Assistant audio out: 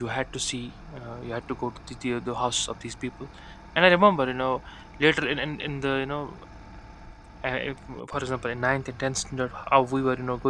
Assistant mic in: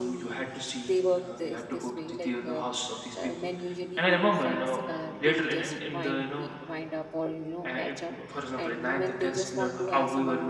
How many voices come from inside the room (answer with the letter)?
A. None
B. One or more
B